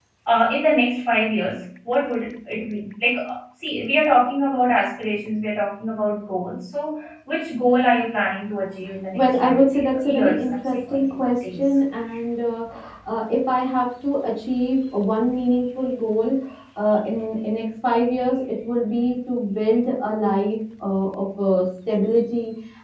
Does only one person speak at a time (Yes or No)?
No